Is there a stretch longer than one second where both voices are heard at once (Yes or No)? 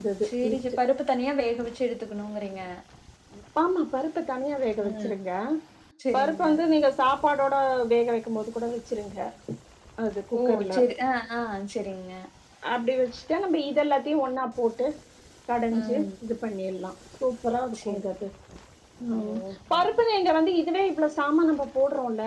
No